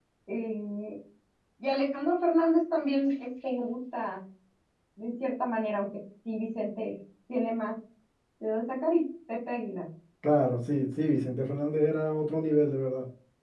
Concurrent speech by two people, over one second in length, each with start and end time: none

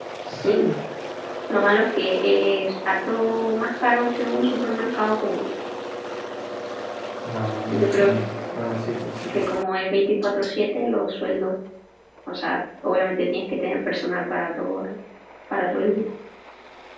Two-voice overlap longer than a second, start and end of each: none

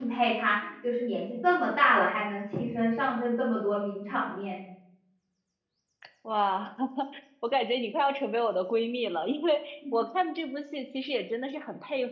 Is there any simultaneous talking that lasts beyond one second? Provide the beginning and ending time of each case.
none

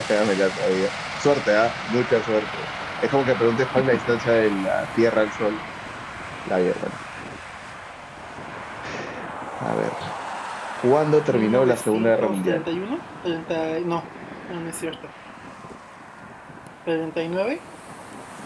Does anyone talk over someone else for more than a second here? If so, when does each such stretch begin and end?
11.3-12.6

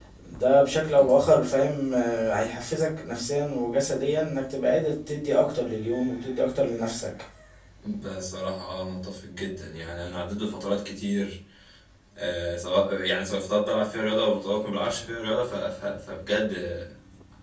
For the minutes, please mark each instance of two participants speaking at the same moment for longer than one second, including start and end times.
none

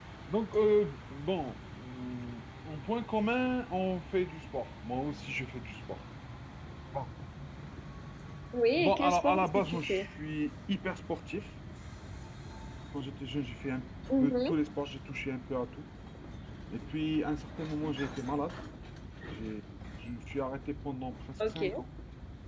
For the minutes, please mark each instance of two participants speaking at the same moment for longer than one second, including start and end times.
8.8-10.1

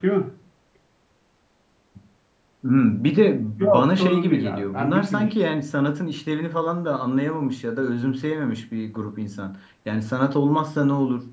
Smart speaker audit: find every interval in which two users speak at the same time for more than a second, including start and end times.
3.7-5.3

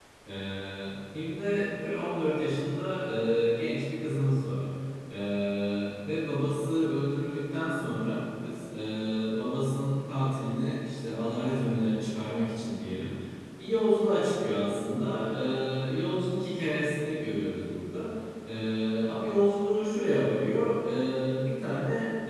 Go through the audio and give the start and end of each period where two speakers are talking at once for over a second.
none

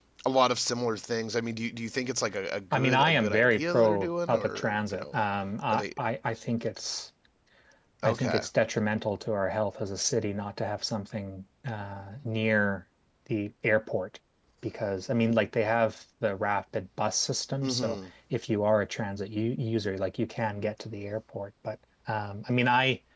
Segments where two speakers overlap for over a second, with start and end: 2.7-5.2

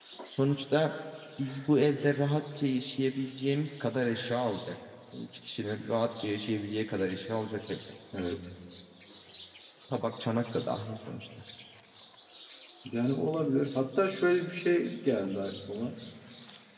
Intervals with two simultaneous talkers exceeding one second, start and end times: none

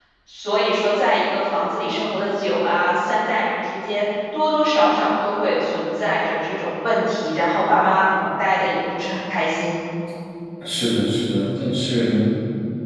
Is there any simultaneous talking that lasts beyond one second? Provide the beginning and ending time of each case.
none

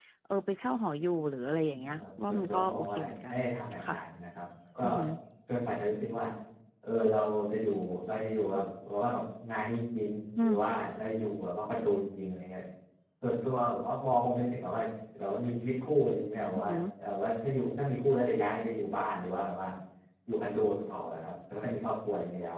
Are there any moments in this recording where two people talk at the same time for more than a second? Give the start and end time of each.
1.9-3.4

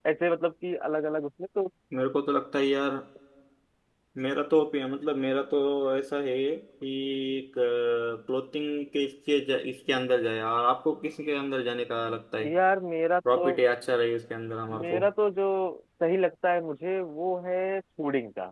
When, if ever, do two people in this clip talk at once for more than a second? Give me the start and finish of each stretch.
none

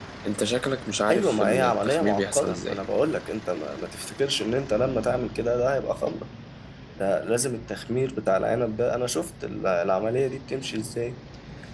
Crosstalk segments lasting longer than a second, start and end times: 1.1-2.8

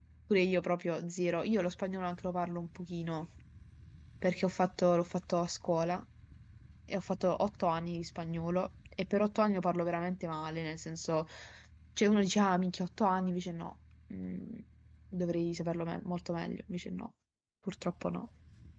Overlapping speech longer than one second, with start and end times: none

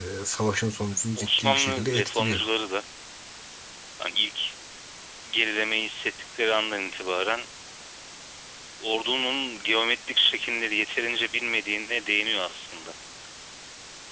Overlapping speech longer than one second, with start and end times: 1.2-2.4

